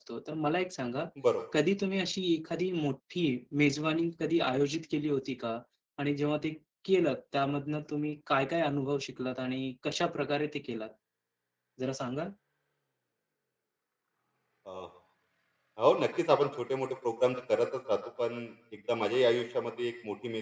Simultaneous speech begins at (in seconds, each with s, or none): none